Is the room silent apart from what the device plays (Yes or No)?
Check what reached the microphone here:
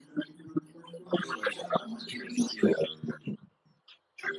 Yes